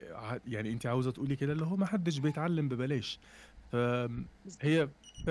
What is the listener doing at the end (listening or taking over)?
listening